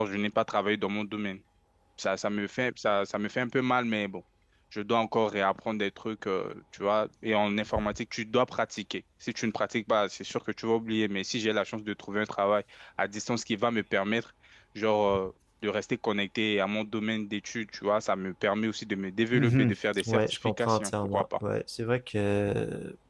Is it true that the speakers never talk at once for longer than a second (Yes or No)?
No